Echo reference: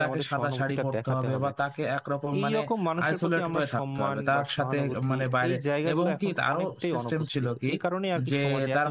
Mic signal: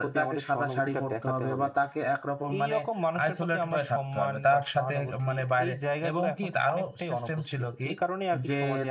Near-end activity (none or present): none